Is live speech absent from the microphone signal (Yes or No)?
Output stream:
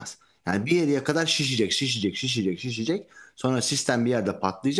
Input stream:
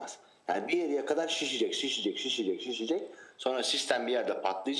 Yes